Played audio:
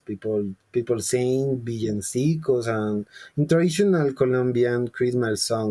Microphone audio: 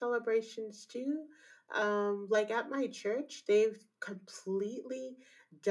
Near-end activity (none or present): present